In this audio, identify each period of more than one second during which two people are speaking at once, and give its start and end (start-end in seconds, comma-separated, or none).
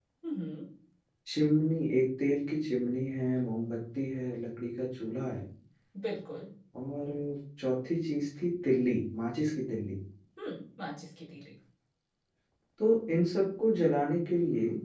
none